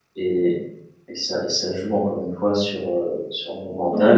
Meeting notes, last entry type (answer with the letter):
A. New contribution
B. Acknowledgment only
B